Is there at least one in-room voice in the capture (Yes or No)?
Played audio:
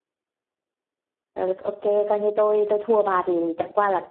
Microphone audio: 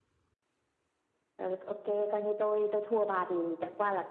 No